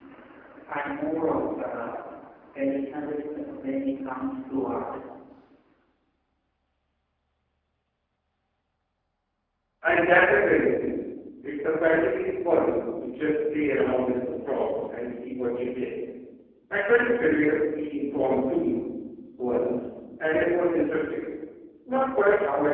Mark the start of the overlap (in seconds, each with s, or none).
none